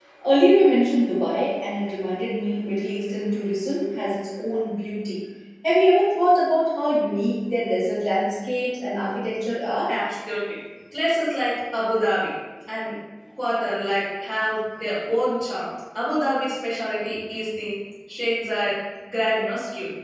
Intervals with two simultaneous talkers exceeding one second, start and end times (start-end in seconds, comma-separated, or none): none